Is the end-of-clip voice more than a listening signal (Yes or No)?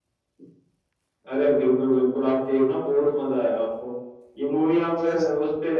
No